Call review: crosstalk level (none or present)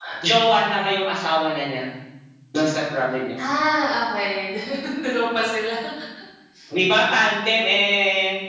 none